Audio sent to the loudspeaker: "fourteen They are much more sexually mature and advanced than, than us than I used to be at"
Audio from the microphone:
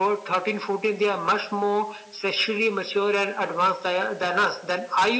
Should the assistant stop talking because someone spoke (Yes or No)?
No